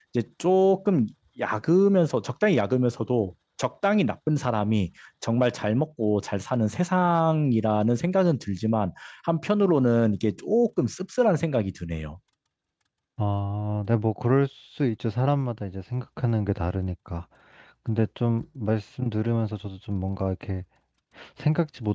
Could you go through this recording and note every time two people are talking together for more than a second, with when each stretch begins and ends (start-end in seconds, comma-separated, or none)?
none